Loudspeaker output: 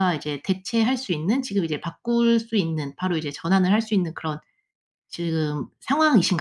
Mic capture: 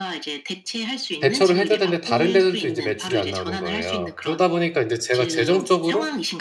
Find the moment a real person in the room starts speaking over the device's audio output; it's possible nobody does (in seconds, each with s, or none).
1.2 s